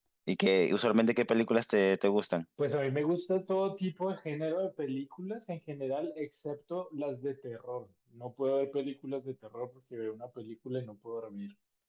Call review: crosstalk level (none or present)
none